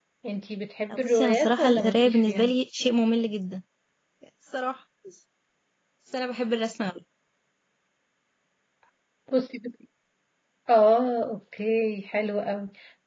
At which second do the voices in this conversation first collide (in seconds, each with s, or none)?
1.0 s